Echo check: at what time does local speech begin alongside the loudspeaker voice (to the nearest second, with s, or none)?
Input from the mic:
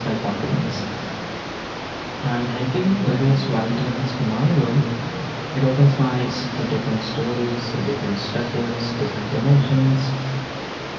none